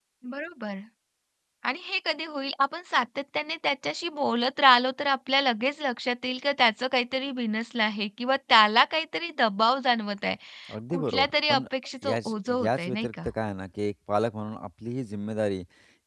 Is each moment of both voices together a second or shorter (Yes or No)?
No